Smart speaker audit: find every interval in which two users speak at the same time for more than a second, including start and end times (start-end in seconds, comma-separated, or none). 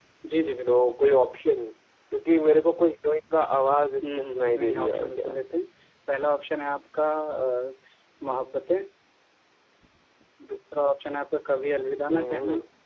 4.1-5.4